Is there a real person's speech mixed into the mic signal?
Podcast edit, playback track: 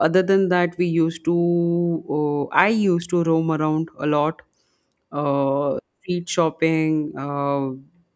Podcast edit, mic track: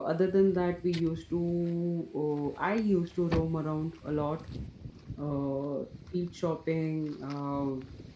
No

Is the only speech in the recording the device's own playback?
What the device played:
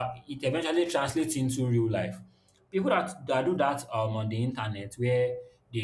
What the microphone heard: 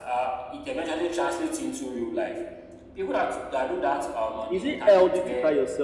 No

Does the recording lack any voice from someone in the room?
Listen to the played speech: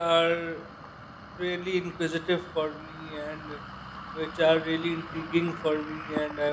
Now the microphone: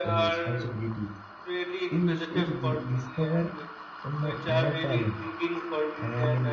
No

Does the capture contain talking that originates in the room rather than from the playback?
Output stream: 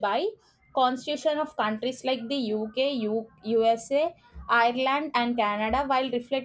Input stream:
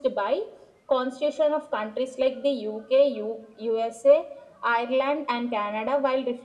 No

